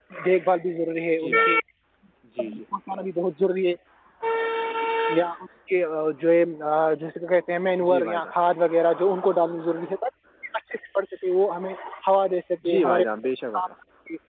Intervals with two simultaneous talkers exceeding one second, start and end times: none

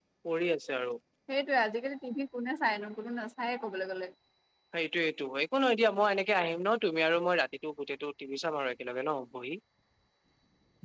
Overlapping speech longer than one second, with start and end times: none

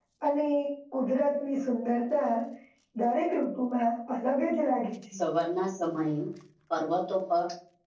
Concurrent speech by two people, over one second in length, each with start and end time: none

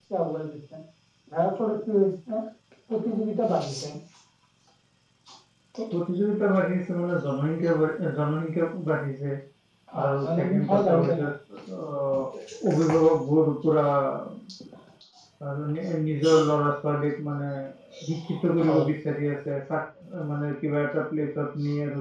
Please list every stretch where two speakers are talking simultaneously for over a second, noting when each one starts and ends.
10.0-11.2

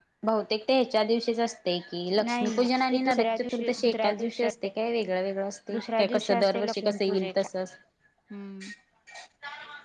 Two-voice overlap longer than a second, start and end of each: 2.3-4.5, 5.7-7.5

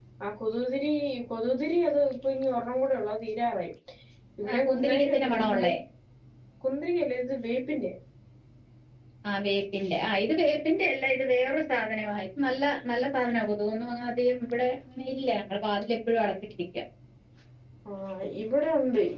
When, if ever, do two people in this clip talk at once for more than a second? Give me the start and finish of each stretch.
4.5-5.7

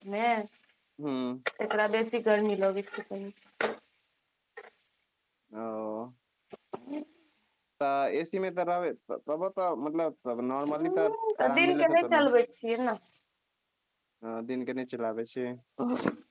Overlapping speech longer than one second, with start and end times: 10.7-12.2

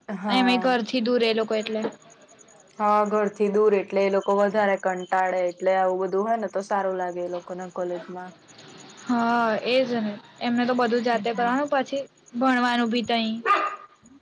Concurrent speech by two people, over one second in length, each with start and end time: none

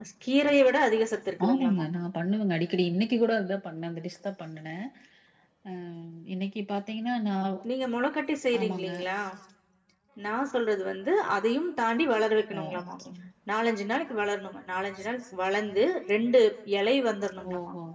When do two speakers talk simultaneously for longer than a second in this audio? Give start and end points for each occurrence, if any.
none

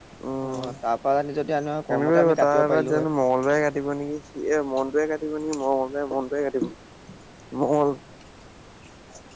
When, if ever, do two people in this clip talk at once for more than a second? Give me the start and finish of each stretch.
1.9-3.1

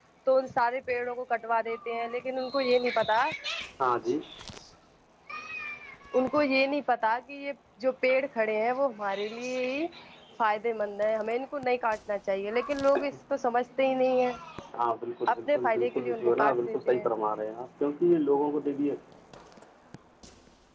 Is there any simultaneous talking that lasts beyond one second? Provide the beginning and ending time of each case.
15.3-17.1

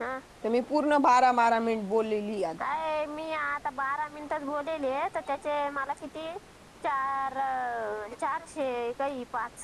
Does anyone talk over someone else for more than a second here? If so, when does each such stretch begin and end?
none

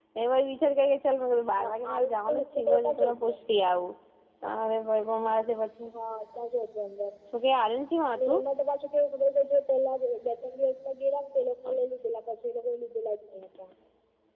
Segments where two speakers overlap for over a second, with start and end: 1.6-3.4

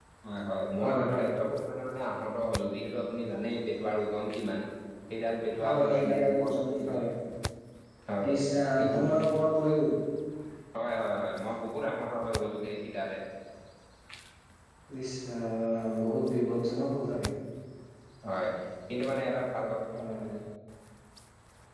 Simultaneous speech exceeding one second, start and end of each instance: 5.7-7.0

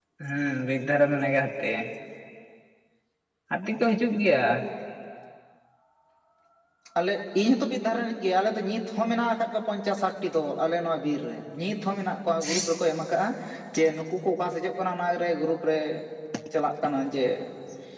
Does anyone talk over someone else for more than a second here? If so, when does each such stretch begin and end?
none

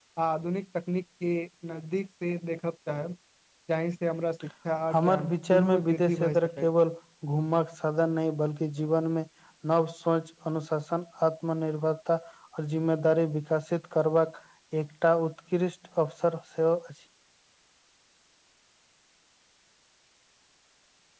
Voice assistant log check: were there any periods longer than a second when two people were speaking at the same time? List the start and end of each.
4.9-6.7

